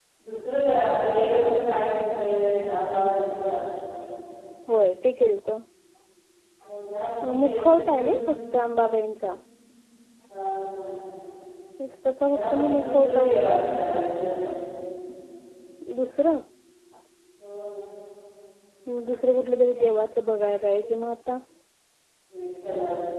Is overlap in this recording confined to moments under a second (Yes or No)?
No